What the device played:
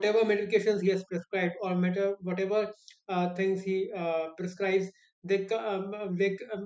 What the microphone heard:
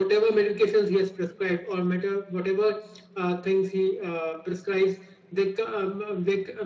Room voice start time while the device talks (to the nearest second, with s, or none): none